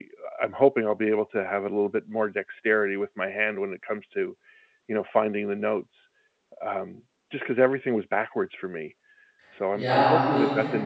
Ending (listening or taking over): taking over